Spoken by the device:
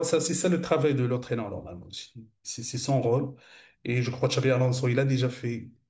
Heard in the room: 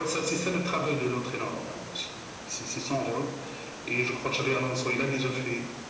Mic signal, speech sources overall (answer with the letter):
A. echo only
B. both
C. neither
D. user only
A